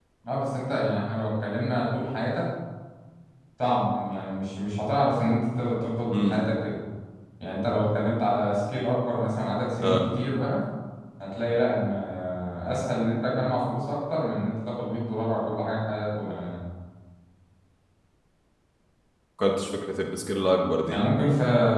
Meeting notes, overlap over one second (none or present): none